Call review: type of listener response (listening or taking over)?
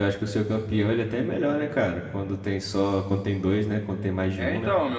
taking over